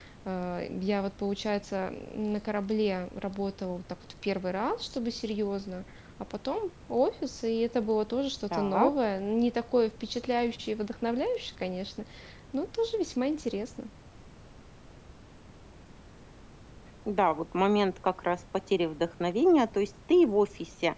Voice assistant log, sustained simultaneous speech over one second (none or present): none